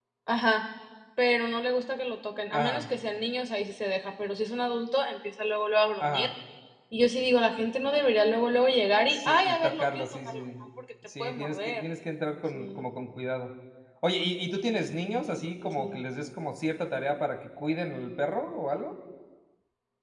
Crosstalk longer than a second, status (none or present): present